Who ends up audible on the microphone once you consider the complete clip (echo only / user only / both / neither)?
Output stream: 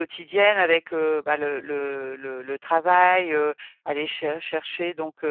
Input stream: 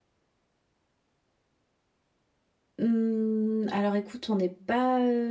user only